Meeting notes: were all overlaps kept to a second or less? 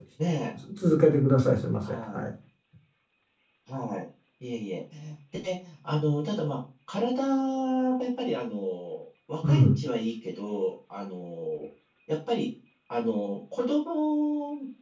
Yes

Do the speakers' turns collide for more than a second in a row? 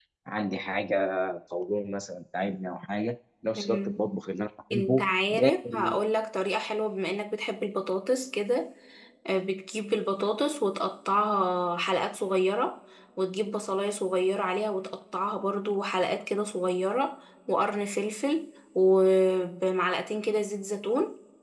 Yes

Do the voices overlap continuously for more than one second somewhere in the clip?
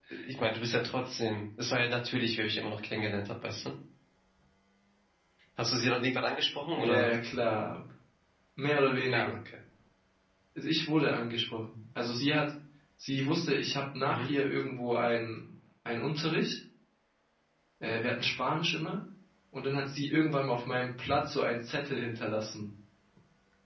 No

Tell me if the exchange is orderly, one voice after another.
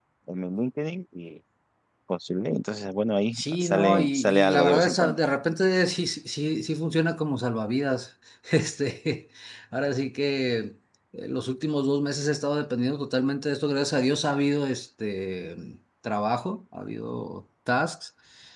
No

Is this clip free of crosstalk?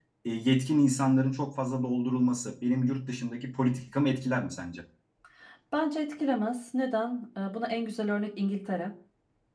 Yes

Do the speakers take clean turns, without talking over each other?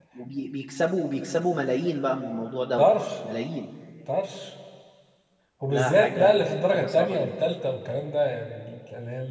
No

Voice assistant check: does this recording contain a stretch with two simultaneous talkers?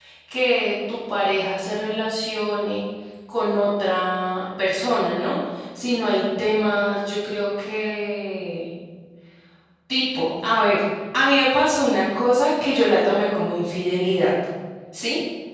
No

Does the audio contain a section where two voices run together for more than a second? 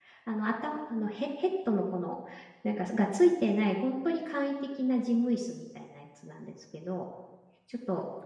No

